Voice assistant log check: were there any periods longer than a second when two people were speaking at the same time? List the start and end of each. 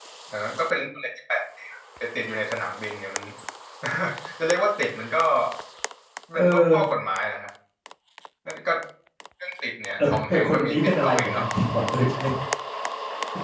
10.0-11.4

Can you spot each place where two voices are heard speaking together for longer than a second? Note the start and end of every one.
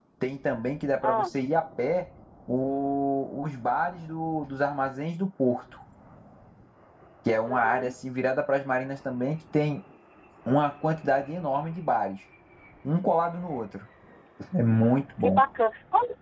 none

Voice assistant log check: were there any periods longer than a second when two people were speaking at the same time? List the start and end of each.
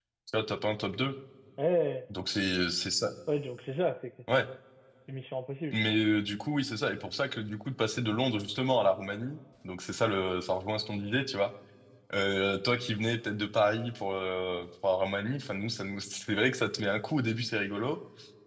none

